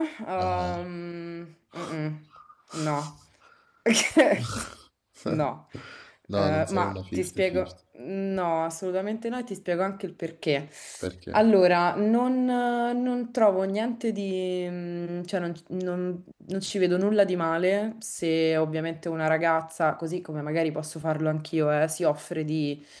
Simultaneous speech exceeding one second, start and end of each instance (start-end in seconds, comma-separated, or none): 6.3-7.7